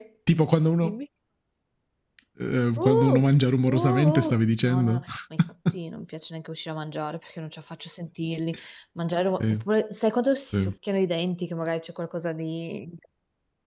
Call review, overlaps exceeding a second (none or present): present